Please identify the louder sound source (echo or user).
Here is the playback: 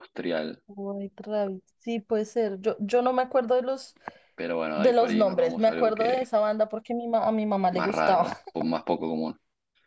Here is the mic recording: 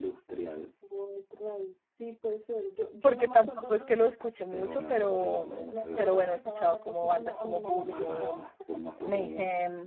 user